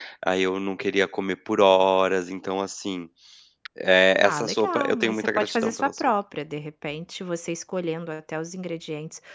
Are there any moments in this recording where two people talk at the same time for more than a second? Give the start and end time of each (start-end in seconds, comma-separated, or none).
4.2-6.1